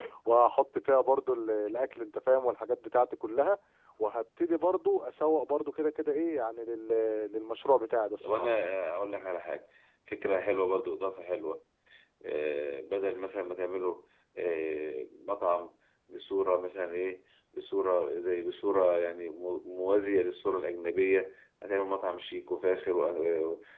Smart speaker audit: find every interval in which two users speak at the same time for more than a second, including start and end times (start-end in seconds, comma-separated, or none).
none